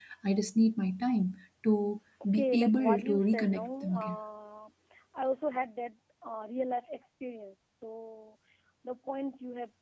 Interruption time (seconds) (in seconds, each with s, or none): 2.2 s